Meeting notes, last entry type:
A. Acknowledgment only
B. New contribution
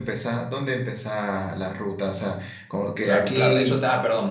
B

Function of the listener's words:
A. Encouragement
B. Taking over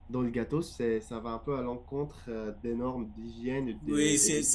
B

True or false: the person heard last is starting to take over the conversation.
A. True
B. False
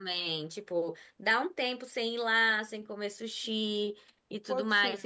A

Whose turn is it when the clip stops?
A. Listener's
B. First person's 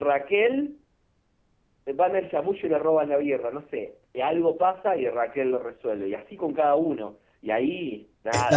A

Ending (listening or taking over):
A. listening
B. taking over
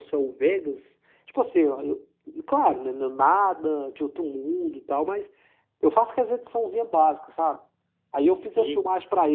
A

